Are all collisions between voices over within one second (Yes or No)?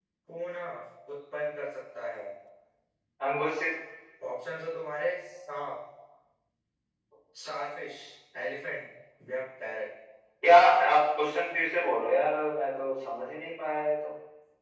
Yes